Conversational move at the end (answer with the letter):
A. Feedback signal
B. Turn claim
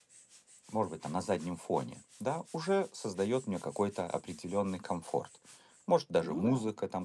A